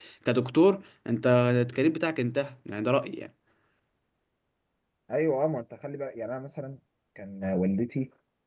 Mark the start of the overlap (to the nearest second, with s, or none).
none